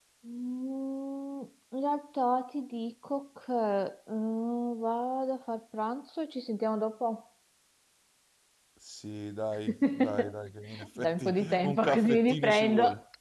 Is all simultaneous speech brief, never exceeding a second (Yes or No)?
No